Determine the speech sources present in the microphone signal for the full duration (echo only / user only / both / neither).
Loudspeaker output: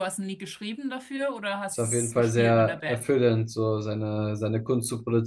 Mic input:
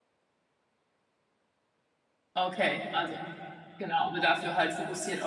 user only